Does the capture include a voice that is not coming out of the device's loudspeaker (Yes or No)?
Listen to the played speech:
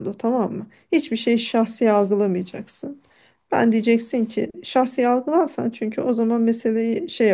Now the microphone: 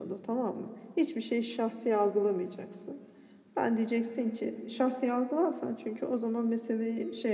No